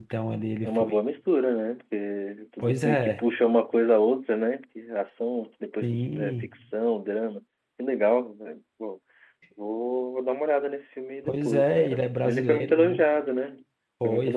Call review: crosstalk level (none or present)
present